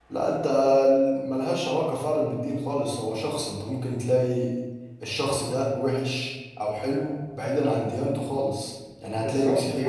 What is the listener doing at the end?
taking over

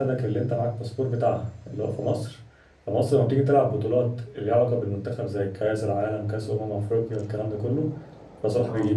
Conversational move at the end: listening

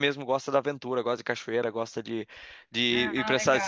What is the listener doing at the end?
taking over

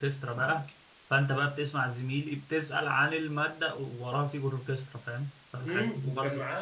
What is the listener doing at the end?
taking over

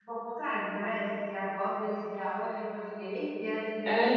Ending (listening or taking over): taking over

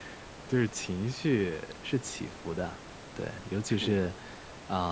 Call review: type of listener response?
listening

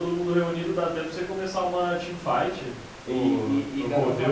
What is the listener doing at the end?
taking over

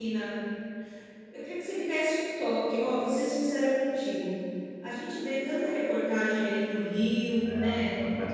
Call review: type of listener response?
listening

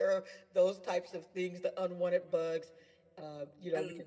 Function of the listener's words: listening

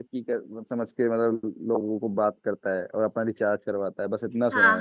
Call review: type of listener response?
taking over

